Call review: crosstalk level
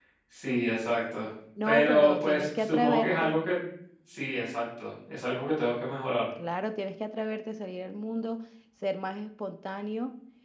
present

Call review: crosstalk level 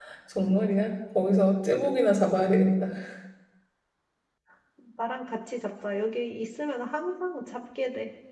none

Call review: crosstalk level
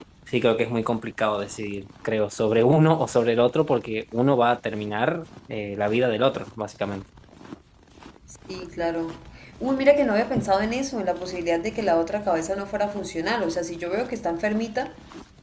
none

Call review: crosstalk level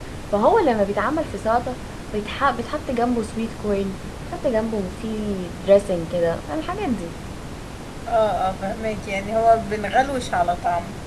none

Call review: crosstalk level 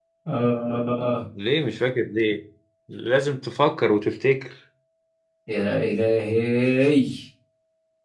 none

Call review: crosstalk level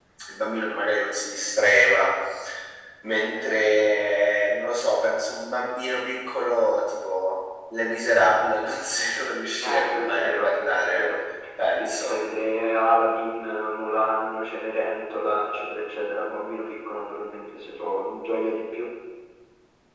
present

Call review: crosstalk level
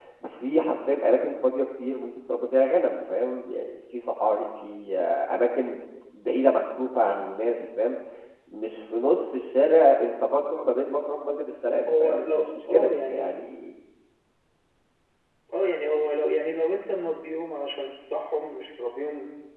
present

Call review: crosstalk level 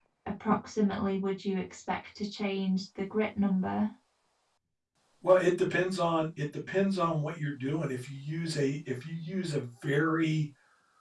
none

